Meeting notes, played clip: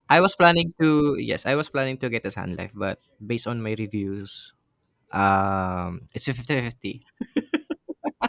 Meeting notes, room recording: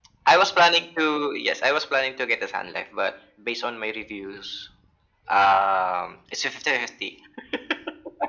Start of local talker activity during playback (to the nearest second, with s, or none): none